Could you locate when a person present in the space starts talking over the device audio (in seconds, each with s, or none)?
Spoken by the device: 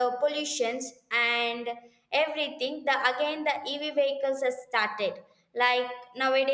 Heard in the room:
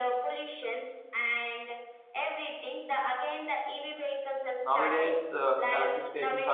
4.6 s